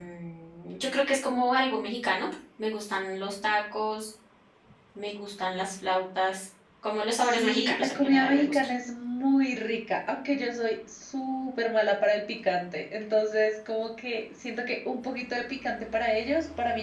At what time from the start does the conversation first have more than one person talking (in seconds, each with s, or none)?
7.2 s